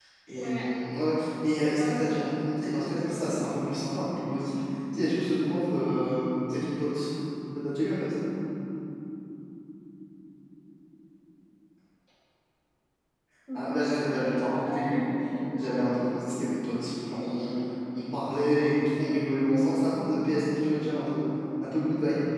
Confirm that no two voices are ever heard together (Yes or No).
No